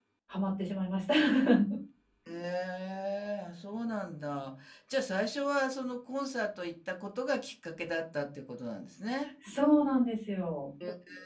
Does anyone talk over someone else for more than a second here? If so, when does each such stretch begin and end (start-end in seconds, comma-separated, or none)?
none